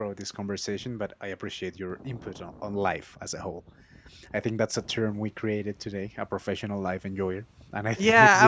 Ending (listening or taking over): taking over